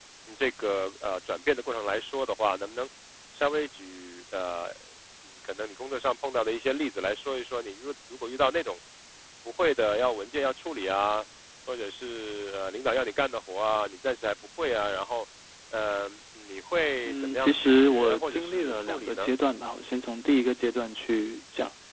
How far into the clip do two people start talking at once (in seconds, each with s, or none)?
17.1 s